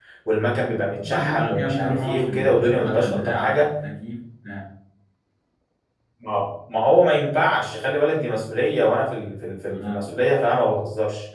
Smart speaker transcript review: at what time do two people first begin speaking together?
1.0 s

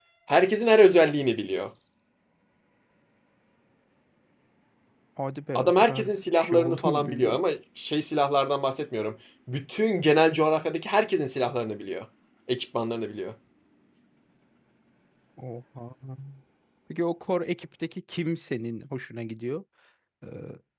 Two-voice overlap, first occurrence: 5.5 s

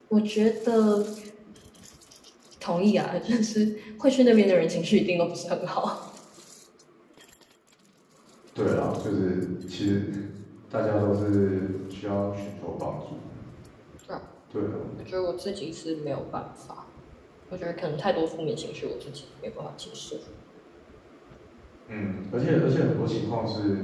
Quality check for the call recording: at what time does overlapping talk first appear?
none

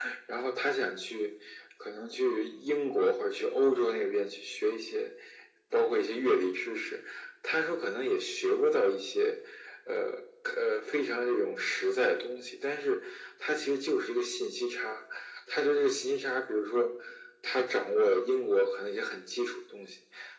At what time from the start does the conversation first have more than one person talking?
none

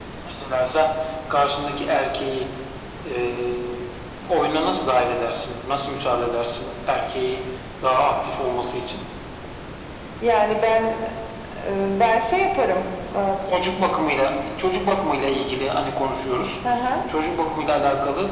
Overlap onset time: none

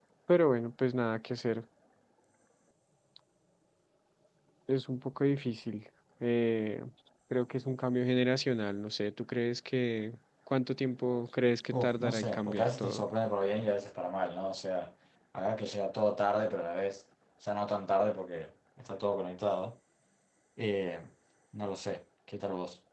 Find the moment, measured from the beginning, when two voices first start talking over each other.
11.7 s

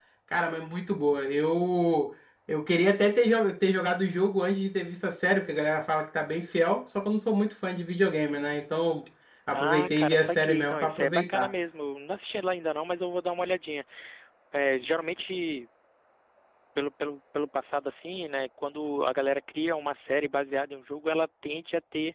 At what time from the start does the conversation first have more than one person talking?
9.5 s

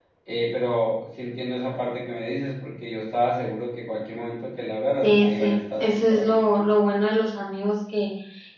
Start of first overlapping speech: 5.0 s

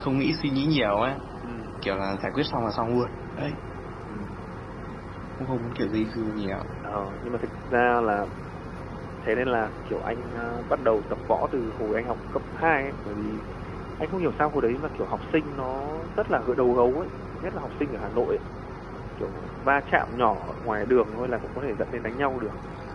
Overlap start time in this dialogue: none

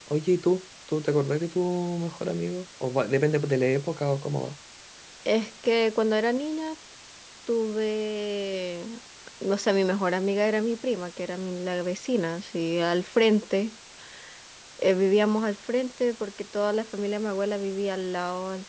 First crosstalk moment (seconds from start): none

